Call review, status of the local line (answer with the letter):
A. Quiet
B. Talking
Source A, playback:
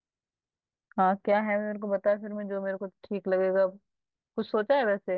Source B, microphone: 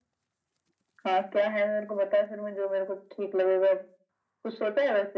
A